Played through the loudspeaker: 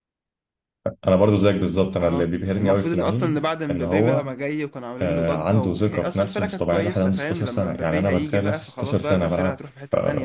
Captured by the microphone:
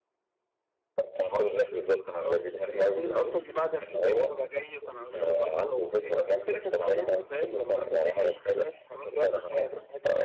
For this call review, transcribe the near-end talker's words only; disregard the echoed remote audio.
none

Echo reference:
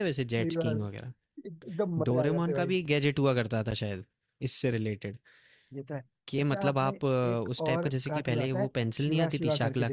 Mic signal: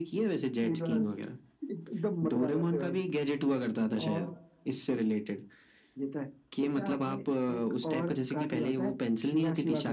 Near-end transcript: और

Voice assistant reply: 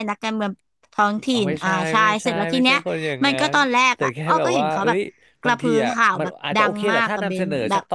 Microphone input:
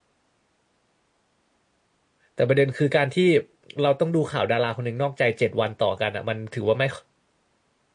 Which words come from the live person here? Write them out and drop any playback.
แต่ประเด็นคือการที่เราต้องดูข่าวดาราคนหนึ่งนอกใจเจ็ดวันต่อกันอ่ะมันถือว่าไม่

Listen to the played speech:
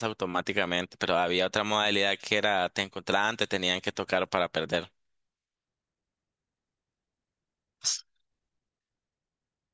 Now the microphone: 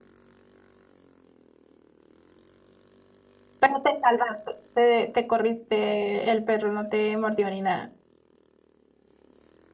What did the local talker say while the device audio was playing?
Pero te salvaste, te, te corriste, el perro no te mordió ni nada.

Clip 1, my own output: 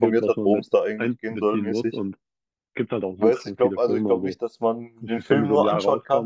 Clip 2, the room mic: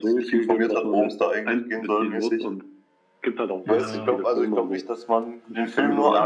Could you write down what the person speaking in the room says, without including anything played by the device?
Ja, ja.

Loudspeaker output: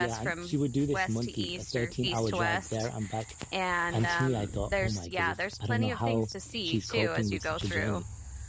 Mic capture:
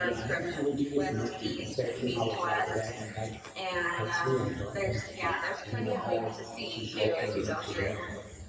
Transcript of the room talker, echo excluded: Mhm.

